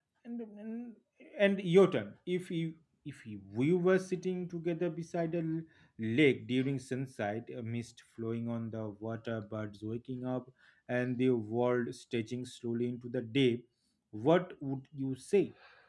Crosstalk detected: No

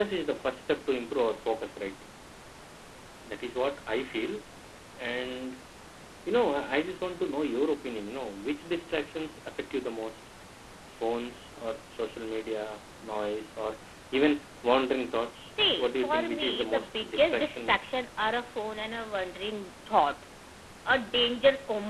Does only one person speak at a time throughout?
No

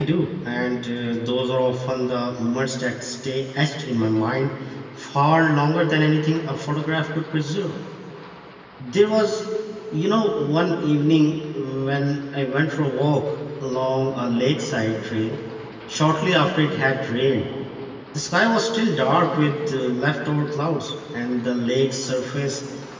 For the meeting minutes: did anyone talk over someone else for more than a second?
No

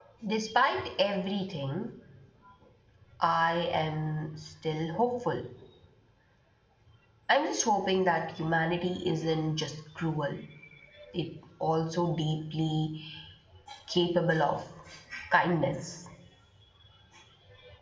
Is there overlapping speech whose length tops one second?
No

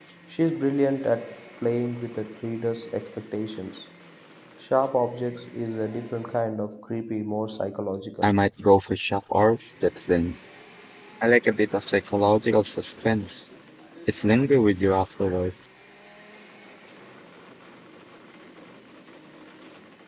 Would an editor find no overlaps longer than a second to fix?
Yes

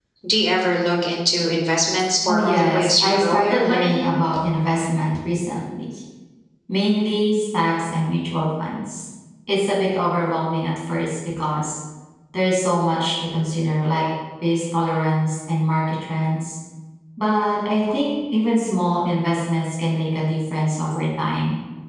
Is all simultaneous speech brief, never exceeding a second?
No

